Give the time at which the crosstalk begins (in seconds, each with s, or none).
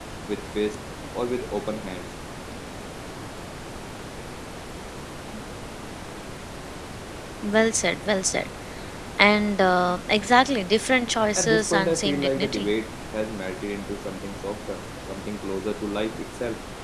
11.4 s